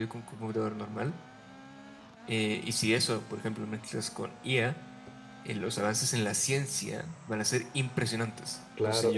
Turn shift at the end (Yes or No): Yes